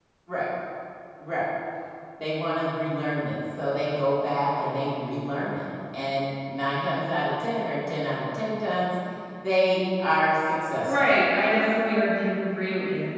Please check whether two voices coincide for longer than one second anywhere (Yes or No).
No